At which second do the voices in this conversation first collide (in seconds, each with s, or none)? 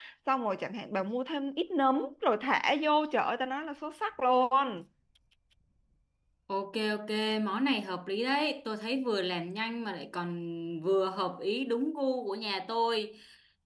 none